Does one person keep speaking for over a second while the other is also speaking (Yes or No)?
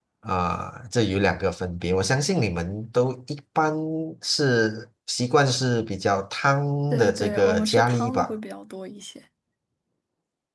Yes